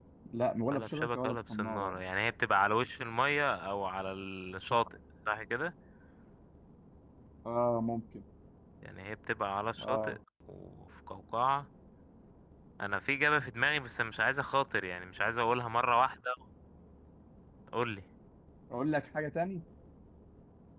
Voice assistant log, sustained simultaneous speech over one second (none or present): present